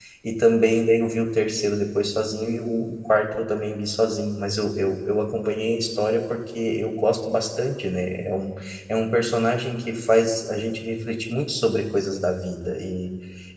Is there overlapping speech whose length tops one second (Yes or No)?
No